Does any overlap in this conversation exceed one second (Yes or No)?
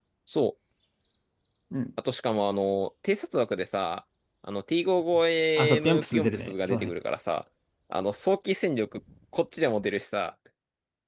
Yes